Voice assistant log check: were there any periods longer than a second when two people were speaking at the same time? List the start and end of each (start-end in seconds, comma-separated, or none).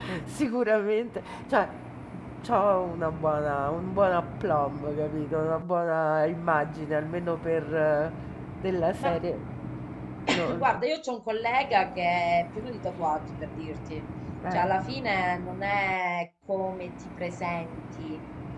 none